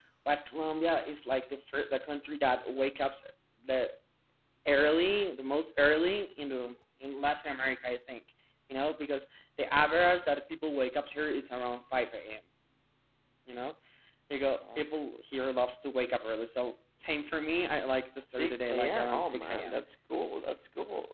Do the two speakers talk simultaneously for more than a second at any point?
Yes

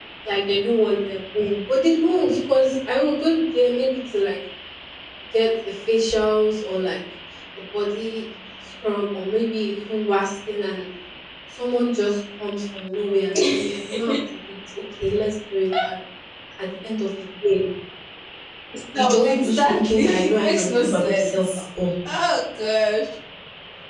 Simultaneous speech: Yes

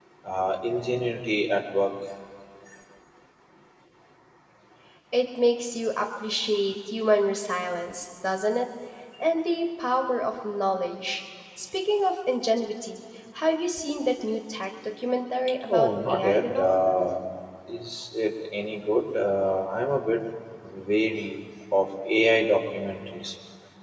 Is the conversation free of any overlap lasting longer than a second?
No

